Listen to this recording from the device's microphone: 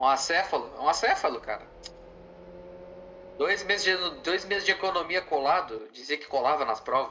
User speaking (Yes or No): No